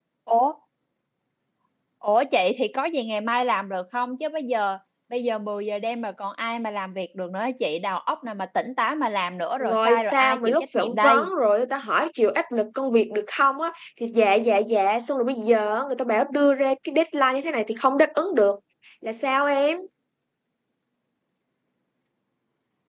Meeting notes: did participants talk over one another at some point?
Yes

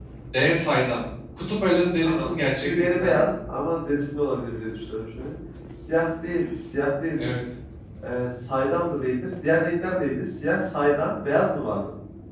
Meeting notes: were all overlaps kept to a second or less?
No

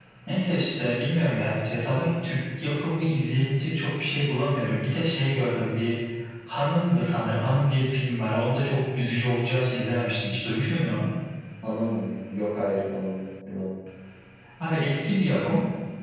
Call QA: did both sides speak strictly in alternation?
Yes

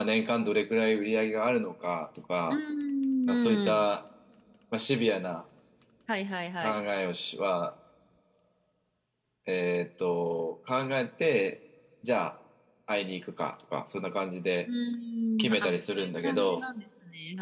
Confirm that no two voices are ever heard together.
No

